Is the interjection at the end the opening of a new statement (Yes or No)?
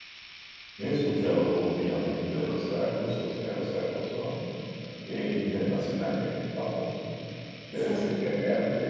No